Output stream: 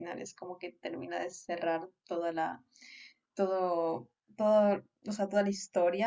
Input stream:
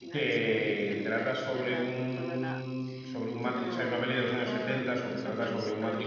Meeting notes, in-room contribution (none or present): present